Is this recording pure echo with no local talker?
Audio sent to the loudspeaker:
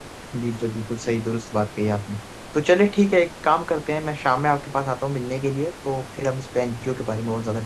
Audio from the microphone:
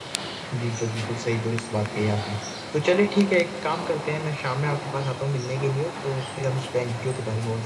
Yes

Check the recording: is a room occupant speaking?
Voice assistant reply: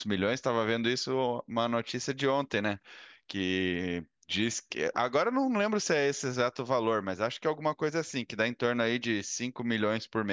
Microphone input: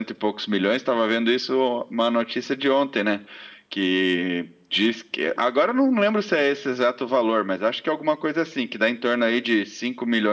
No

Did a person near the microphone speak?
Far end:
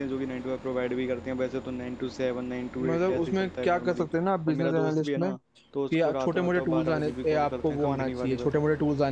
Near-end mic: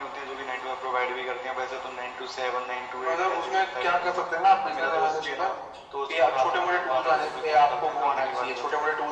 No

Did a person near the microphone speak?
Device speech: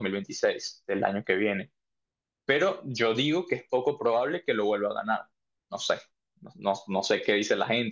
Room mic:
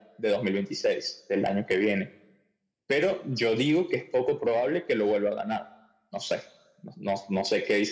No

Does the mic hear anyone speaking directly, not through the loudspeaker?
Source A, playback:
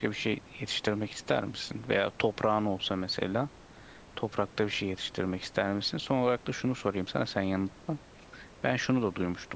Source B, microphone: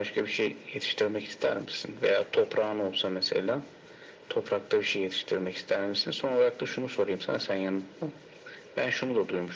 No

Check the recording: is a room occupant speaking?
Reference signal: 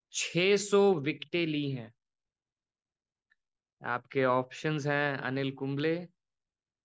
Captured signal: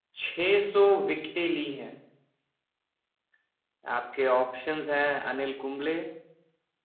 No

